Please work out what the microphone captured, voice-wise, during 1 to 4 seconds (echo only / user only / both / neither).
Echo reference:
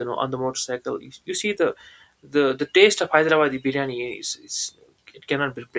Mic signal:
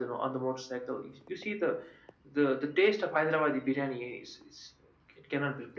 echo only